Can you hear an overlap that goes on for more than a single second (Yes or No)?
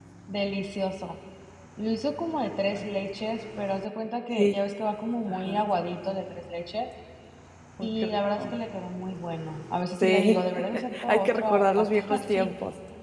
Yes